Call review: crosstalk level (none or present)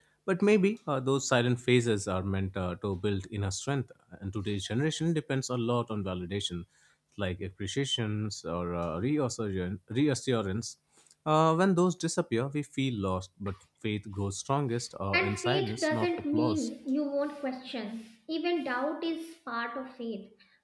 present